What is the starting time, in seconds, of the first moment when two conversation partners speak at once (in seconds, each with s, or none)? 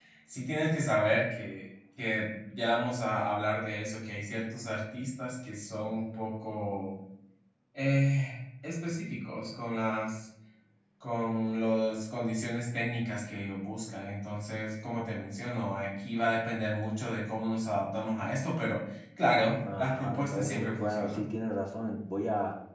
19.6 s